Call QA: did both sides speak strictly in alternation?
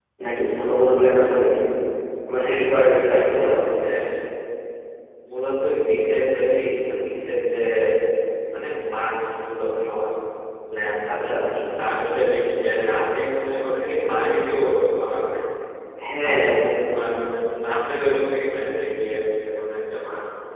No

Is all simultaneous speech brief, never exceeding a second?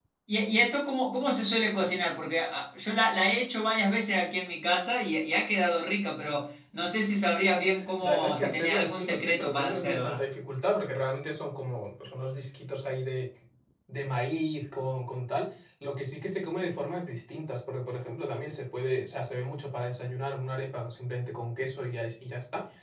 No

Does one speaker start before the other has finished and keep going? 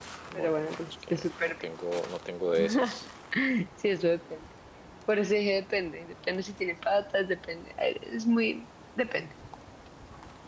Yes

